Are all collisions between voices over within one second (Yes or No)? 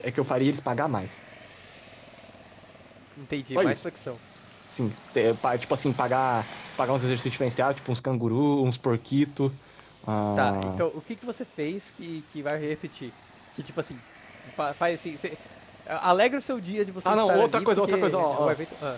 No